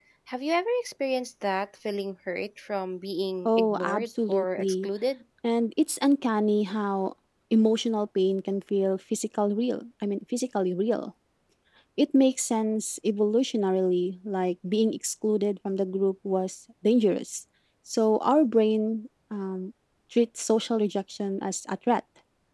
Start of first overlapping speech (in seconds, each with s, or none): 3.4 s